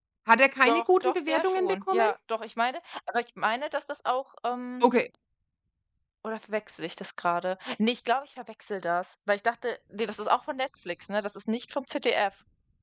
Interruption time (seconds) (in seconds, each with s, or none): 0.7 s